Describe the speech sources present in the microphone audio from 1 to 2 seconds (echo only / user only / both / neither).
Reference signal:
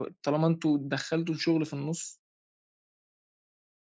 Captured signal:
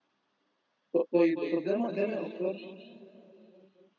user only